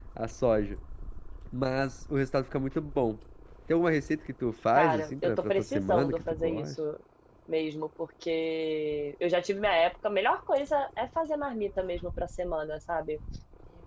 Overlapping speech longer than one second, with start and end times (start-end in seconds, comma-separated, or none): 4.8-6.8